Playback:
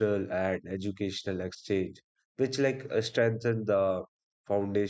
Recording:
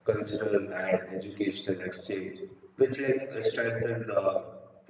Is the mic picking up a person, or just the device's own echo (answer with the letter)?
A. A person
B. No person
B